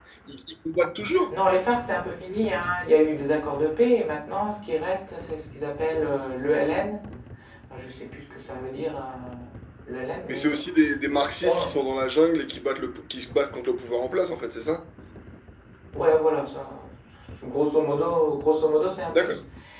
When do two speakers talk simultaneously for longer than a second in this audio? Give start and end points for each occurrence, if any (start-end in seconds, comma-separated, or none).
none